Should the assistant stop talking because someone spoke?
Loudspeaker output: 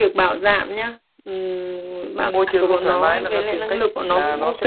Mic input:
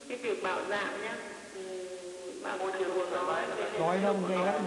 Yes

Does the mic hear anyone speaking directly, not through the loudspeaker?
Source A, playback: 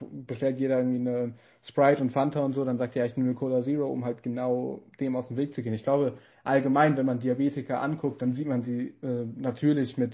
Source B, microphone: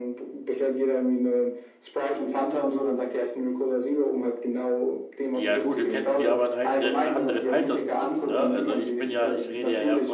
Yes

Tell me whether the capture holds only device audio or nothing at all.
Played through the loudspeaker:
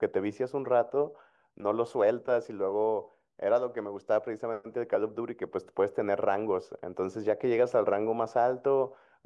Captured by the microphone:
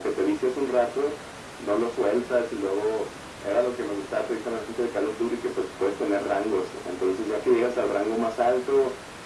Yes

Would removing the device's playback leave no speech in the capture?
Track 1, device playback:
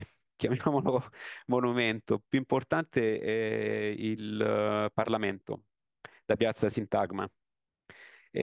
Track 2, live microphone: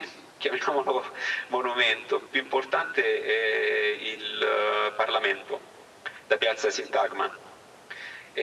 Yes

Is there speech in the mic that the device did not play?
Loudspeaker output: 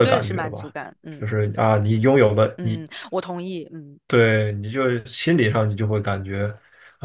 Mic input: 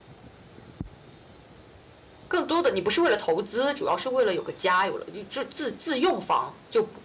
Yes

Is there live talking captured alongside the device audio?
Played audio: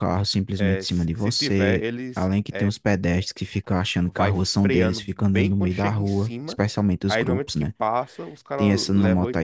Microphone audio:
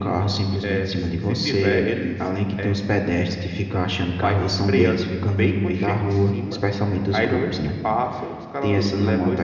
No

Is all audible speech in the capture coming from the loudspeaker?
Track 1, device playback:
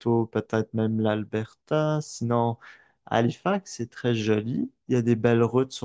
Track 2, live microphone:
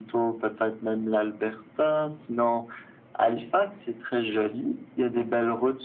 Yes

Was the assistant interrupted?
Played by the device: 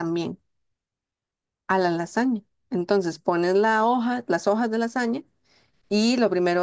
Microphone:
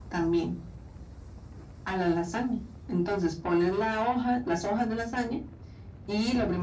No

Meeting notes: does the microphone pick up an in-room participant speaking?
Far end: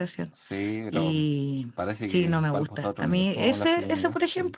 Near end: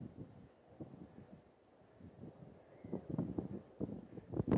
No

